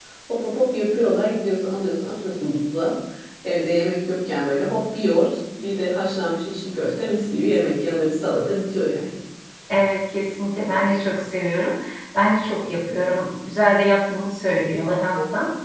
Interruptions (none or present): none